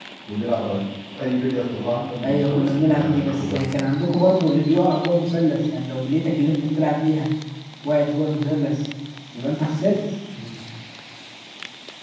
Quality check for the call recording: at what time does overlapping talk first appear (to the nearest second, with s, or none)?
2 s